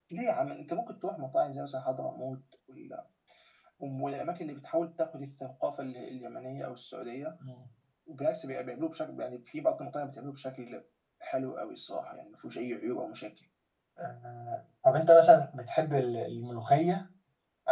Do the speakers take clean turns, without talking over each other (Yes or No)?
Yes